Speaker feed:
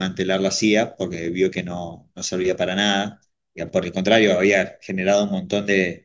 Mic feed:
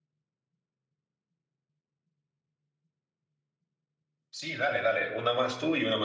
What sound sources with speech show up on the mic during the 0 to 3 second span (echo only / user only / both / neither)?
neither